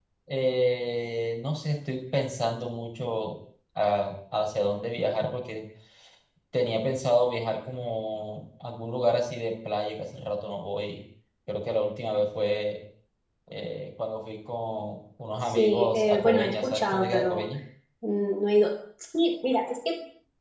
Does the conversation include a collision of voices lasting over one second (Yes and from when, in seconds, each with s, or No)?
Yes, from 15.4 s